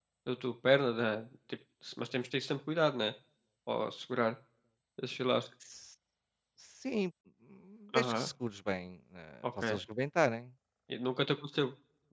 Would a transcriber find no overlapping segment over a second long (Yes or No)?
Yes